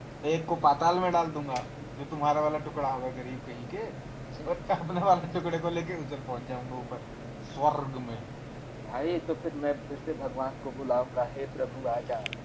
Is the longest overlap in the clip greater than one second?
No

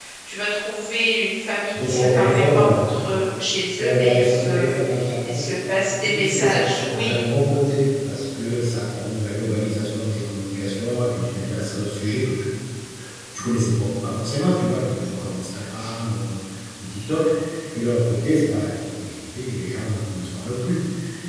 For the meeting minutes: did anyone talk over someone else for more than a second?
Yes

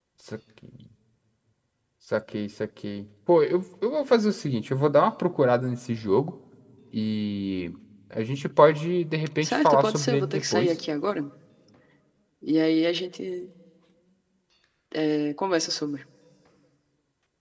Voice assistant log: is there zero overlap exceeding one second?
No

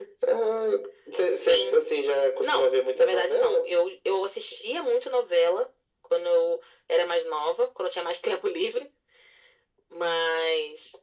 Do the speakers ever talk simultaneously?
Yes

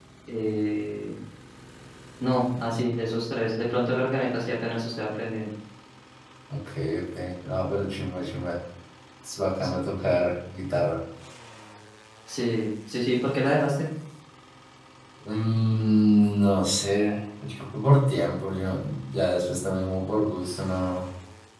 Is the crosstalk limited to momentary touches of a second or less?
Yes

